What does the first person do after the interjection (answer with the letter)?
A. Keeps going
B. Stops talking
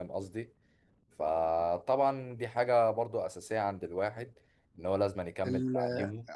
B